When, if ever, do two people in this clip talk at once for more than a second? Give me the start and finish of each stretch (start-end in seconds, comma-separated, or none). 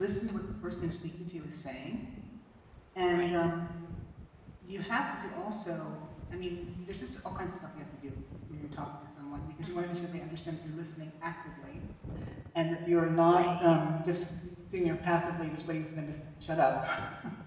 none